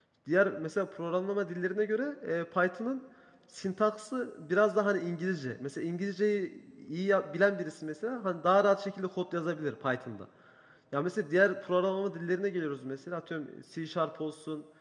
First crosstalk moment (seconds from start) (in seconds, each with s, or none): none